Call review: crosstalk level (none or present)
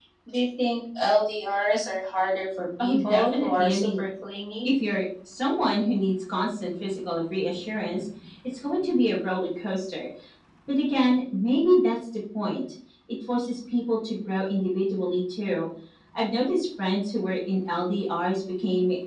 present